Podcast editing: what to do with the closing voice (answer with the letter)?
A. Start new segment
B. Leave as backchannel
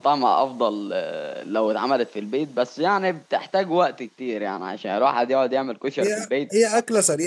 A